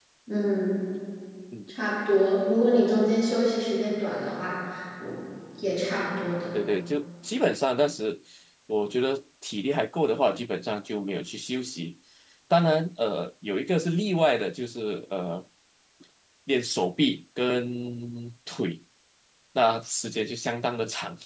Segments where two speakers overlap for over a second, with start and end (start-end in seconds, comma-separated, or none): none